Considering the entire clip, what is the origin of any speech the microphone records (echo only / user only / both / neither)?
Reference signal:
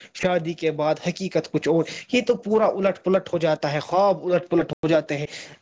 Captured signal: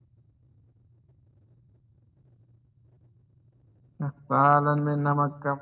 user only